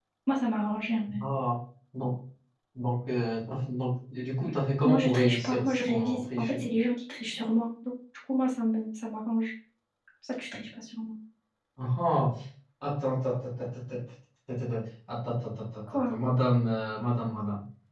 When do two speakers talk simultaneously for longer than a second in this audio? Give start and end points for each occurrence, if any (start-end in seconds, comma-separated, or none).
4.8-6.6